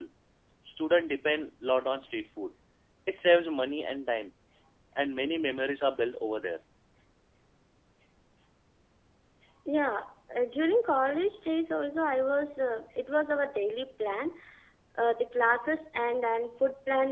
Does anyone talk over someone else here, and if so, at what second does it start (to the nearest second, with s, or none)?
none